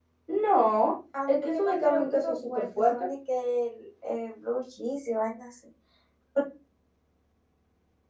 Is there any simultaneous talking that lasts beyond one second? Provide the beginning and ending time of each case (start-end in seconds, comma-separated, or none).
1.3-3.1